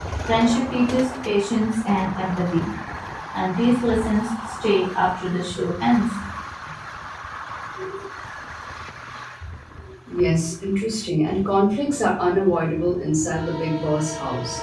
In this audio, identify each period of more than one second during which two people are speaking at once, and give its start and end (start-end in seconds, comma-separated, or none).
none